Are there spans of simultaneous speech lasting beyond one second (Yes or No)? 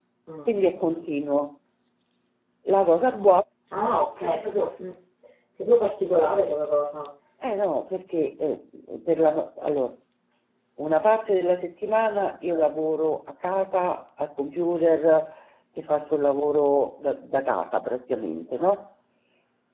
No